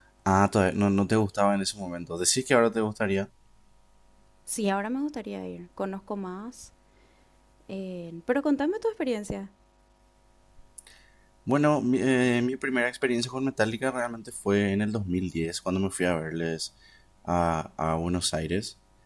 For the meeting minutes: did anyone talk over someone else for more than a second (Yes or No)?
No